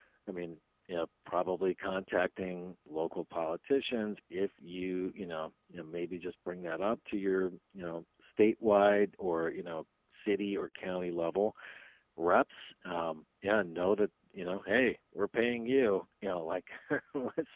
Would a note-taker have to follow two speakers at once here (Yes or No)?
No